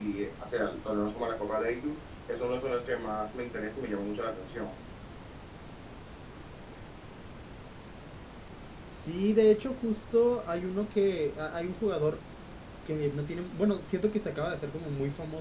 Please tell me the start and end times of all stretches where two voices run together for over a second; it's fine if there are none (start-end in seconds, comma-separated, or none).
none